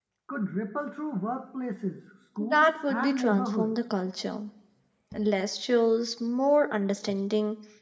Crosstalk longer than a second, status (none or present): present